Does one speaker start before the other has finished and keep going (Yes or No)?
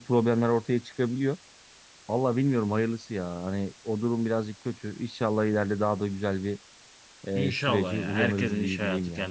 Yes